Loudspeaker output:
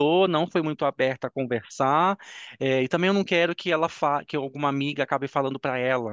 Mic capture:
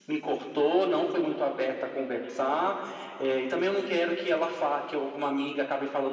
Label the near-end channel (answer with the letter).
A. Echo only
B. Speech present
A